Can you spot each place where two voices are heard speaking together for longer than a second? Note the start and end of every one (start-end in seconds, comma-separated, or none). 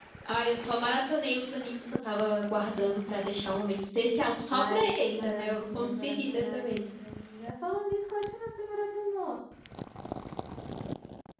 4.6-6.8